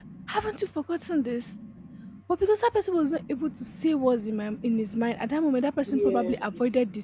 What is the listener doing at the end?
listening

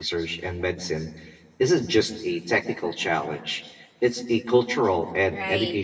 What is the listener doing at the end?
taking over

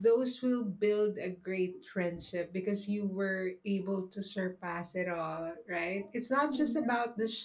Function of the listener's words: listening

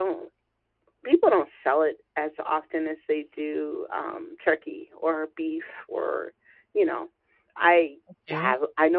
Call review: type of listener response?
listening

